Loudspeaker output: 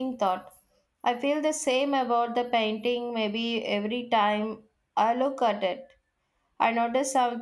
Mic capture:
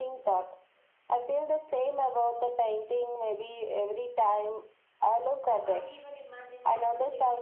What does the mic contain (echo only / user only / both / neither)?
both